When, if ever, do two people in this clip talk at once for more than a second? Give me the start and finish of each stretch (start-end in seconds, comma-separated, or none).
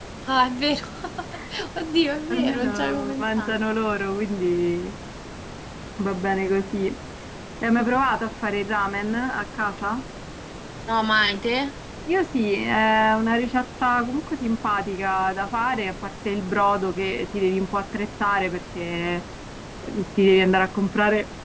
2.3-3.6